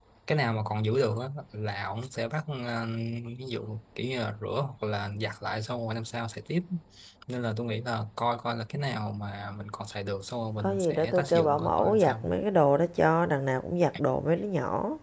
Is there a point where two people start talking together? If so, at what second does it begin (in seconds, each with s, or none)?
10.6 s